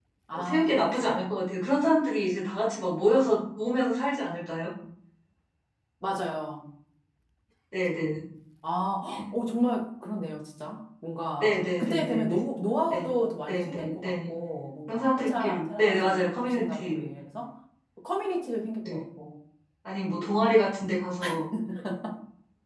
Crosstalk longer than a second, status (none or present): present